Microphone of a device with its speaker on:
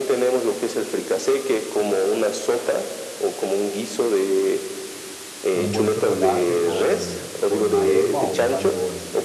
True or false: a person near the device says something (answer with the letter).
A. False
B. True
B